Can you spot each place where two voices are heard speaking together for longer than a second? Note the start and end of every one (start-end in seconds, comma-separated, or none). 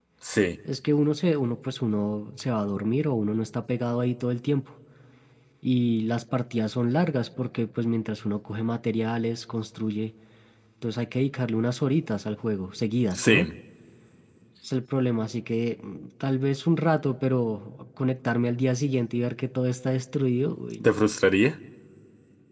none